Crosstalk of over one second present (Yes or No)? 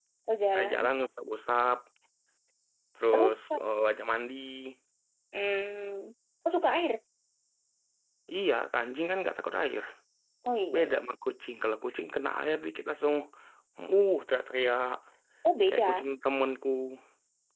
No